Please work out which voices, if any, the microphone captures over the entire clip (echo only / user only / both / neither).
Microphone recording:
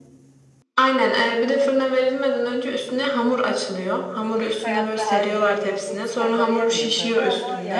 both